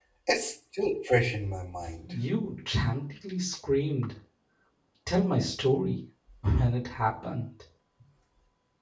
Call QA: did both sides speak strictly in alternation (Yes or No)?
Yes